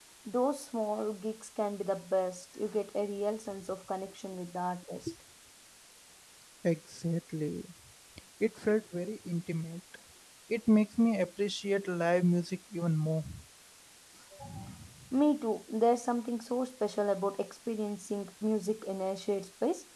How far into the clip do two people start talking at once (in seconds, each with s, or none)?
none